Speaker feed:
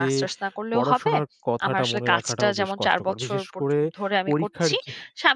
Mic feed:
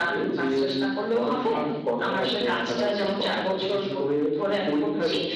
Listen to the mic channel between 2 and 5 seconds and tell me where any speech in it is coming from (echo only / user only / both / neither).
echo only